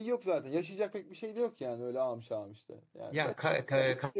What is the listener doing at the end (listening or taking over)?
taking over